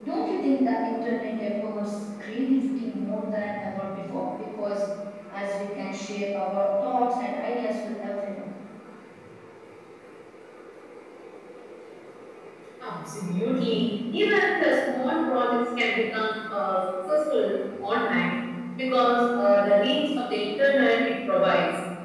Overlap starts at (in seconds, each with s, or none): none